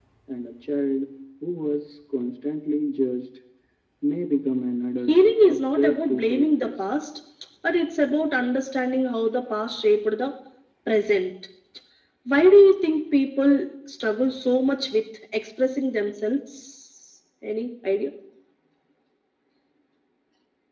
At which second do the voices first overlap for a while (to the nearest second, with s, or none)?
5 s